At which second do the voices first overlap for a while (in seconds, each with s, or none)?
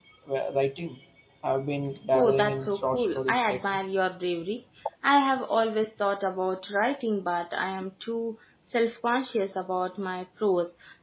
2.1 s